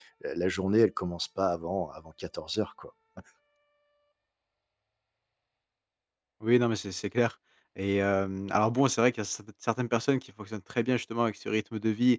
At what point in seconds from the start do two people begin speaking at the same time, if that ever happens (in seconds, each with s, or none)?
none